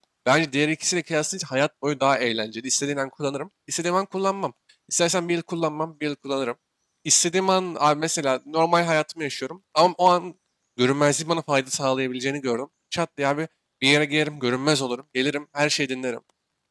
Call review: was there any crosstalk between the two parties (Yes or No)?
No